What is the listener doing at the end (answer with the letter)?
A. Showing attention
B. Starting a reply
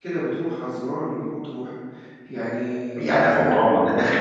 B